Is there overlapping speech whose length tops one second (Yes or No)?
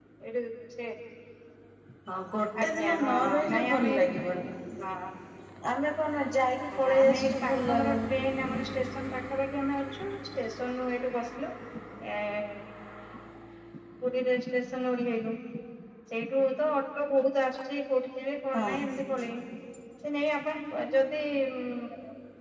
Yes